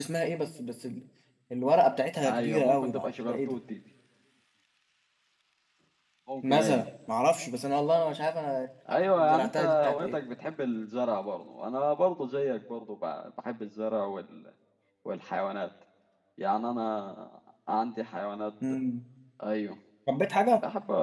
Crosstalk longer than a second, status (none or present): present